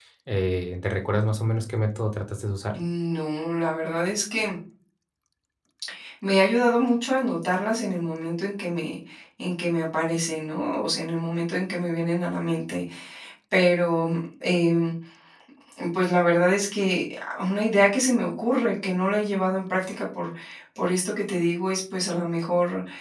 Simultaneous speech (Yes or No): No